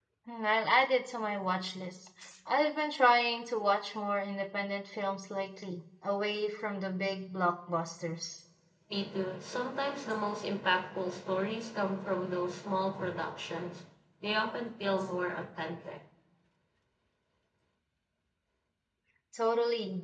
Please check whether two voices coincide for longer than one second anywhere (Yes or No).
No